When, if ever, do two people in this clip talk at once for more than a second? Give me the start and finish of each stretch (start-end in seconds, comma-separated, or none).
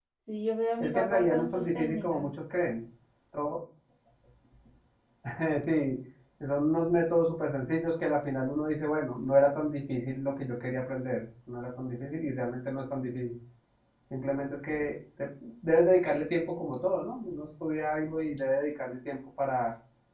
0.8-2.2